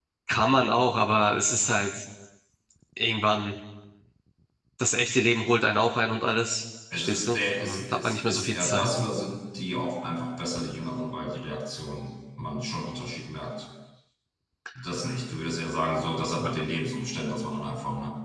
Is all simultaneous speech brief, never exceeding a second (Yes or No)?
No